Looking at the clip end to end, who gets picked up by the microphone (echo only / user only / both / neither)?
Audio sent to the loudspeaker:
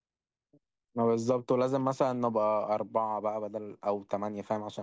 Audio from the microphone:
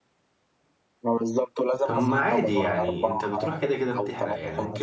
both